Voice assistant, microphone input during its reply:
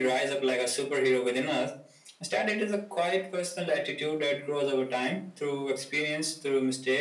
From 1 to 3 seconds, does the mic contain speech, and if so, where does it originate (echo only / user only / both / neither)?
echo only